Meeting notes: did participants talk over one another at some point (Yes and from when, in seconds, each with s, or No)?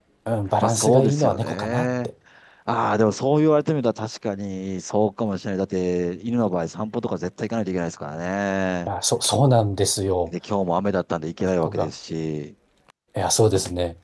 Yes, from 0.6 s